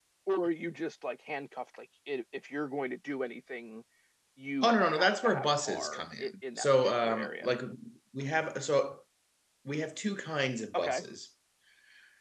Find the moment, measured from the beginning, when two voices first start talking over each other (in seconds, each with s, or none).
4.6 s